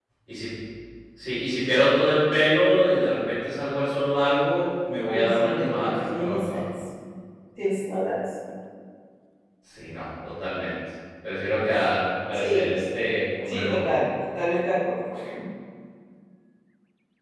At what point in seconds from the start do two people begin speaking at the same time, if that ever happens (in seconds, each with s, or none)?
5.1 s